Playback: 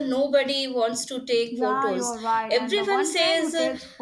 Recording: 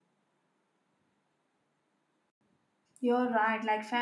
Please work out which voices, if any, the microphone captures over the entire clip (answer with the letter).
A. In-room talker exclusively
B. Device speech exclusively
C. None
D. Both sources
A